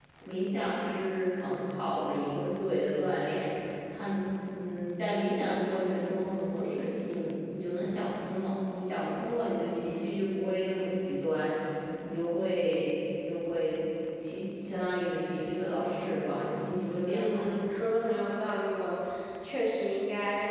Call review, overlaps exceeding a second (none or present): none